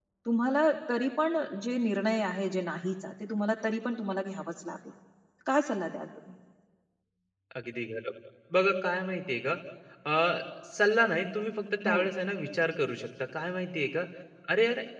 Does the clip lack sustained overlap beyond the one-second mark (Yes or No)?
Yes